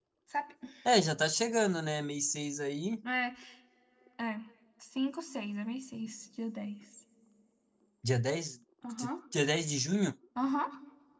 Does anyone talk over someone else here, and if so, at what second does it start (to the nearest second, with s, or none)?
none